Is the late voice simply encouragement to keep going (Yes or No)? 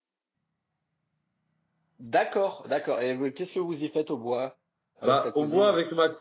No